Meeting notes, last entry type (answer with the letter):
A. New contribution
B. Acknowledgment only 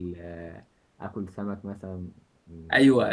A